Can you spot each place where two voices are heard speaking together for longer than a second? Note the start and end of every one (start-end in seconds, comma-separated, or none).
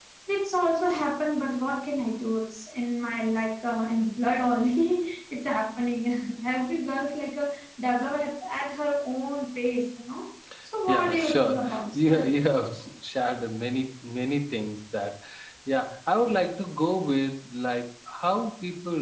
10.9-12.3